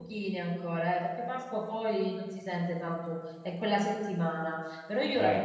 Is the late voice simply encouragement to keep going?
Yes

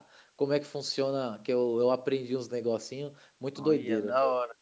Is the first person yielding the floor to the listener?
Yes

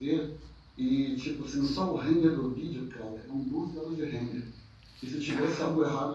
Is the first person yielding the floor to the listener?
No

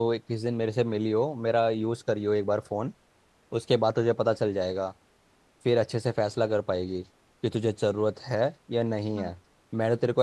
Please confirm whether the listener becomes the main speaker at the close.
No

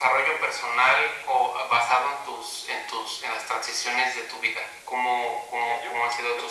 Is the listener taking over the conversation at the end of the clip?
Yes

